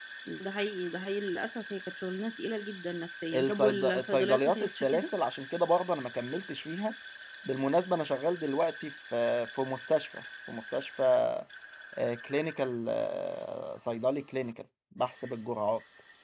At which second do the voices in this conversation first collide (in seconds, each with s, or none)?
3.3 s